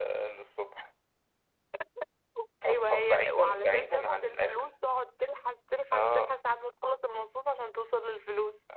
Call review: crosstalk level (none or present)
present